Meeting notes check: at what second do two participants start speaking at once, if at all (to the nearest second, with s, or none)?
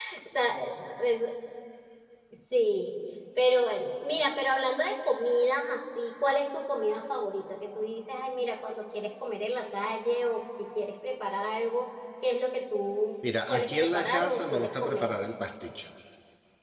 13 s